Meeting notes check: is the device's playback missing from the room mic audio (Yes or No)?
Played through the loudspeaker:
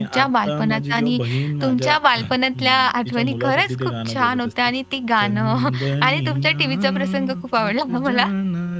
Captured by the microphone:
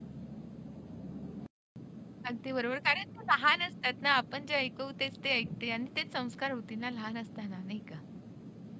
Yes